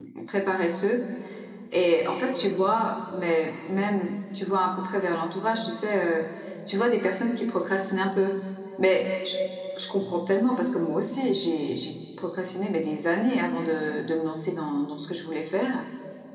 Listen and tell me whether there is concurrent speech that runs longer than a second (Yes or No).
No